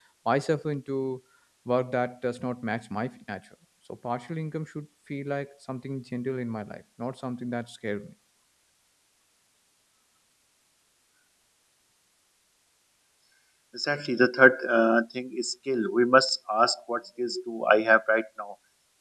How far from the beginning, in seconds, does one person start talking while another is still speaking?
none

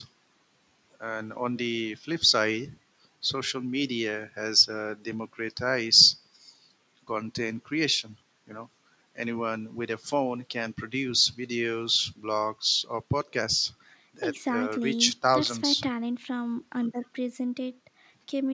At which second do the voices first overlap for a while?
14.2 s

